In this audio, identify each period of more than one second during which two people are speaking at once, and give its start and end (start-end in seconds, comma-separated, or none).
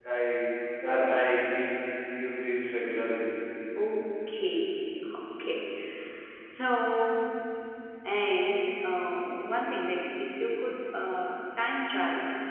none